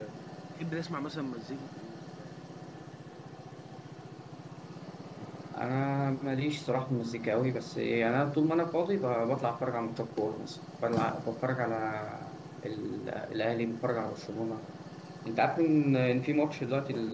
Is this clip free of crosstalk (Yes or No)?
Yes